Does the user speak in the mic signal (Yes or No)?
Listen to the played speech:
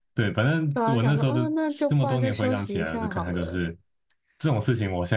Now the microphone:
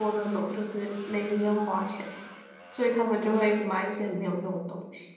Yes